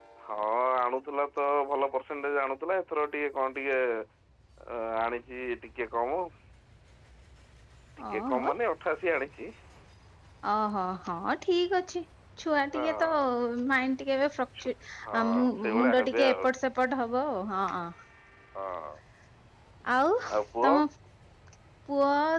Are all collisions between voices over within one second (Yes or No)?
No